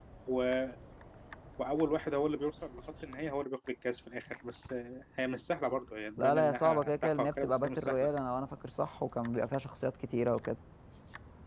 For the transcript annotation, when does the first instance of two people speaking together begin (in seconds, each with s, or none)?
6.2 s